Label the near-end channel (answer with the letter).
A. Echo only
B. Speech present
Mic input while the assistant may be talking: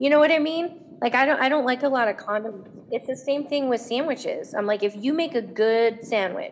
A